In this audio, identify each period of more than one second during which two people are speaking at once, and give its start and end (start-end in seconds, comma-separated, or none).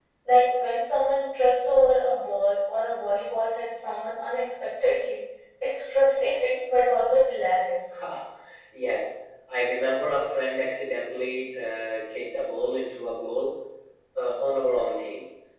none